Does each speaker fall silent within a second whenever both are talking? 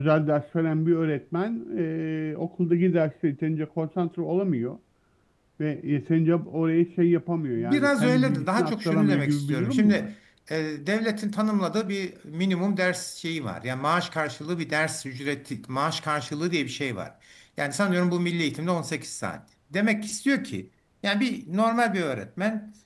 No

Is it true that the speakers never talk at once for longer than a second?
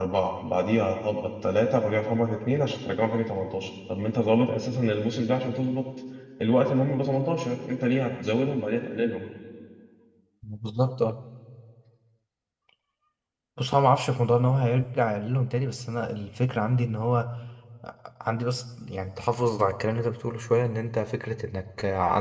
Yes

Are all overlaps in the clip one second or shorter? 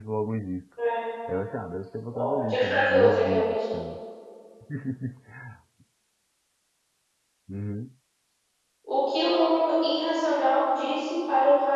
No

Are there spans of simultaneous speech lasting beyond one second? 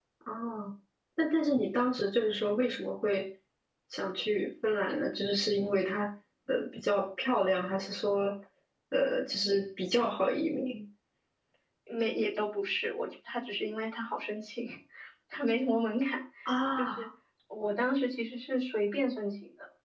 No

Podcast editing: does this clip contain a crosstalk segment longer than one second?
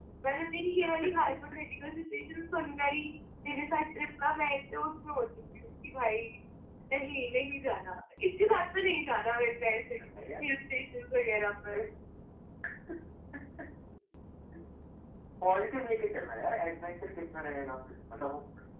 No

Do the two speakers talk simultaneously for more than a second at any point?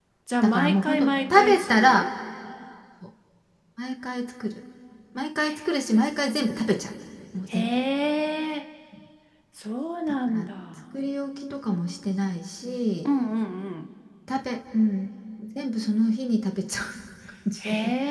Yes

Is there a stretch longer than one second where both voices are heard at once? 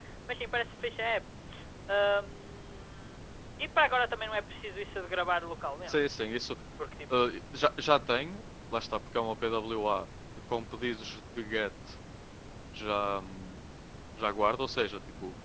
No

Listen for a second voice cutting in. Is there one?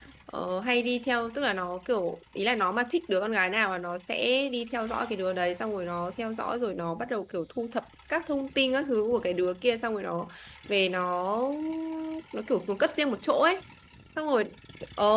No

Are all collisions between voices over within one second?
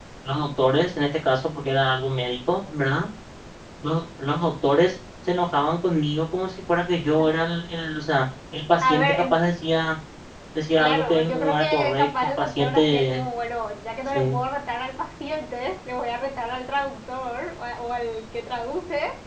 No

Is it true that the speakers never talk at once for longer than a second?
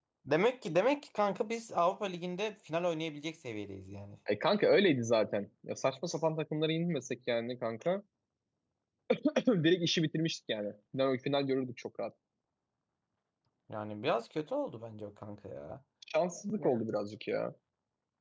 Yes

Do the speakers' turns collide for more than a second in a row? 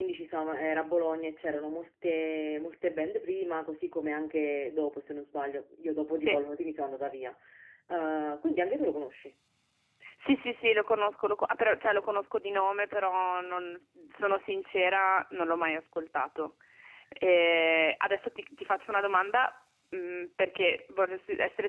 No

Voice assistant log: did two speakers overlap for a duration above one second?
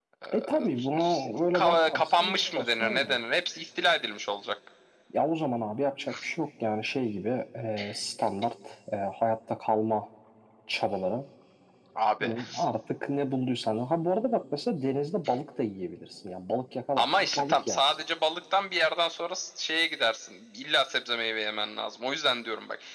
Yes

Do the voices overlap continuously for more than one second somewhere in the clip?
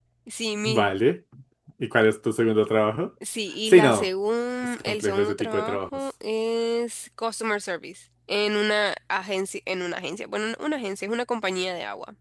Yes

